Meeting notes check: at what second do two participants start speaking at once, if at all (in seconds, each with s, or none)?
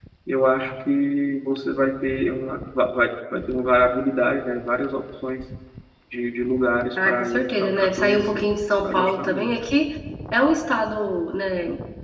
7.0 s